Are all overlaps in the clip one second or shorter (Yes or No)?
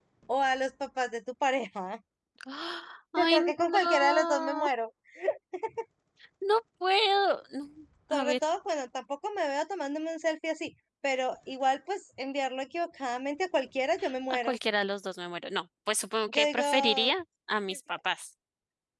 No